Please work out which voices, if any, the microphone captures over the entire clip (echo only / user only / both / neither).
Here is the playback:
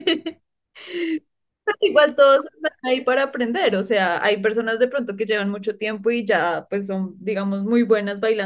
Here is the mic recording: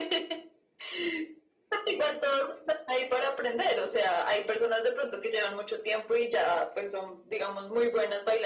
echo only